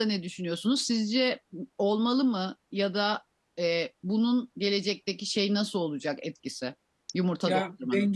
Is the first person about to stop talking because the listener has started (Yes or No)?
Yes